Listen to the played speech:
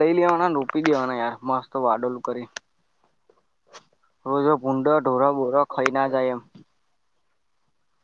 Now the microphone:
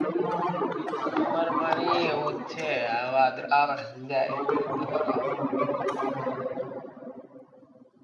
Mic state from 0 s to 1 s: echo only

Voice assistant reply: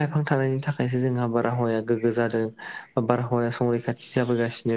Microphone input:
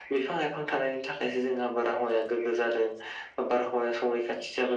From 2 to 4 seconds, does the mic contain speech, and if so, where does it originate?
echo only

